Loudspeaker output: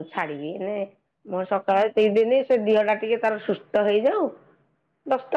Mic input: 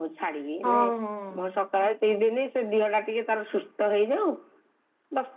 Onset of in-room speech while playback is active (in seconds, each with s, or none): 0.6 s